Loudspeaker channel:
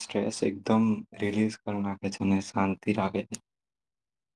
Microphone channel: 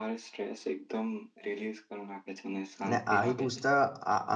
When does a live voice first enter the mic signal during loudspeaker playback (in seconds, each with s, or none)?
2.8 s